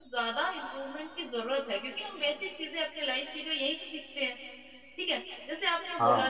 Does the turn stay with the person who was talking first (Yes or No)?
Yes